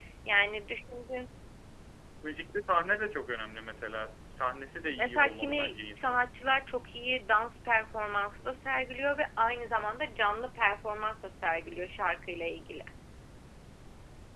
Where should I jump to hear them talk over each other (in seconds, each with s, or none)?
5.0 s